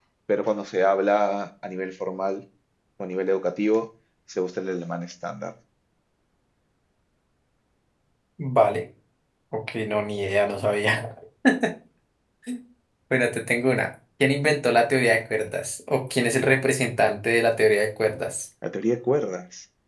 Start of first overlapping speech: none

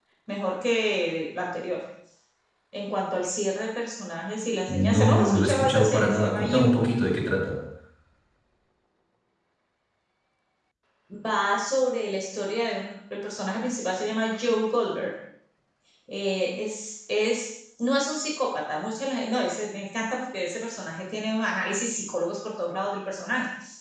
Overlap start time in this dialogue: 5 s

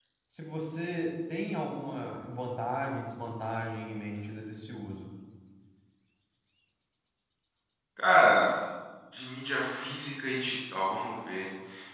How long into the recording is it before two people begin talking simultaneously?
none

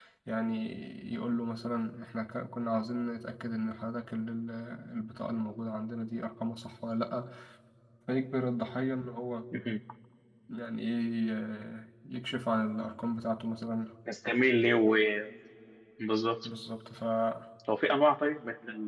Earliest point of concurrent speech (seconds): none

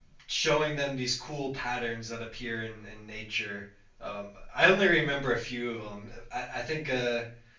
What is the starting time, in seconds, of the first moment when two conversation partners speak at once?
none

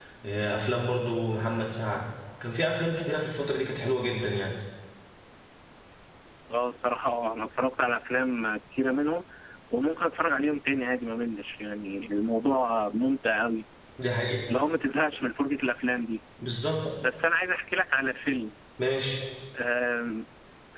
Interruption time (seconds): none

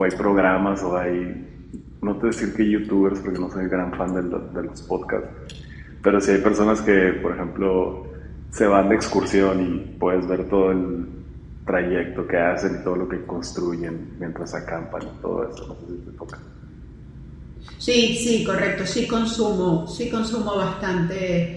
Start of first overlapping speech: none

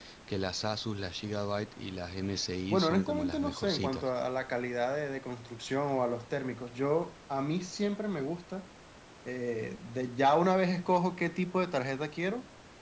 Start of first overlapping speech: 3 s

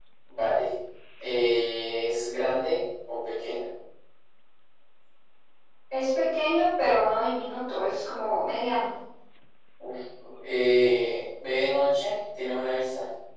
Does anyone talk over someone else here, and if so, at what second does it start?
none

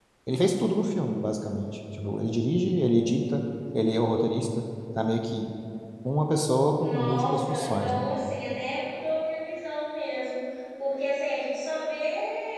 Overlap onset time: 7 s

